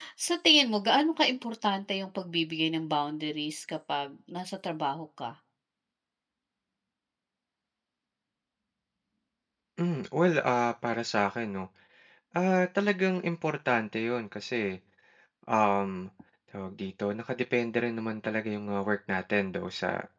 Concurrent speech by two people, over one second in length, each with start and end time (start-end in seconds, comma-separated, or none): none